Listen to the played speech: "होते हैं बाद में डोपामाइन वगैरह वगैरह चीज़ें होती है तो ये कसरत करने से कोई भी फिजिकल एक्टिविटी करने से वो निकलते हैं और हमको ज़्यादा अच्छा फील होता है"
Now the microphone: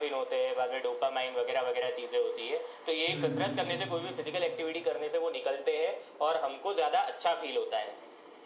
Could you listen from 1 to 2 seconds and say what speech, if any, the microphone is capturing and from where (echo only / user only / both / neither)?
echo only